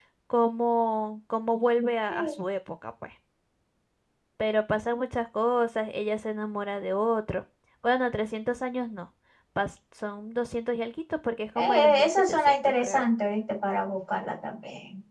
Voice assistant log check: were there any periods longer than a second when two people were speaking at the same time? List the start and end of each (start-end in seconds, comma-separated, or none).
11.6-13.0